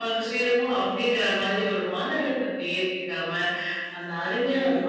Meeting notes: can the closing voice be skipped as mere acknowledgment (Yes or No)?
Yes